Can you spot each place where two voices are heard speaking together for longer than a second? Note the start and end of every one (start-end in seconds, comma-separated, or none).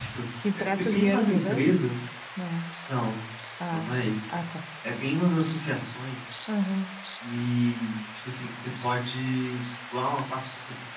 0.6-1.8